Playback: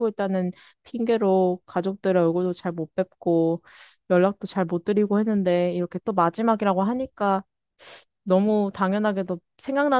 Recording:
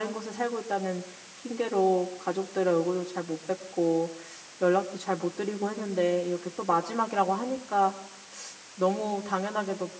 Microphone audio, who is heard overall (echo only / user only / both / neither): echo only